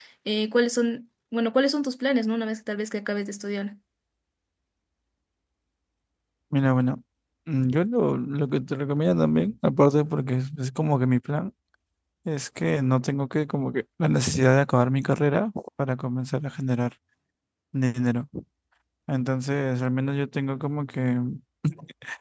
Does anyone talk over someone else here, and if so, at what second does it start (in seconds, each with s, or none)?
none